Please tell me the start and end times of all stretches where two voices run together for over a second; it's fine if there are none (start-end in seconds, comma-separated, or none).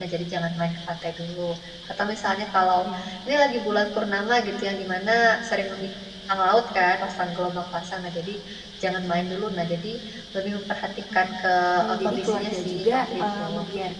11.9-13.4